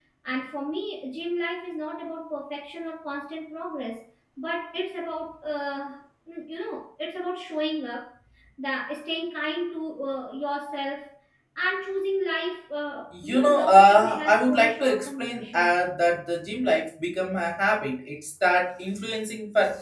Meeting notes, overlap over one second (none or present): present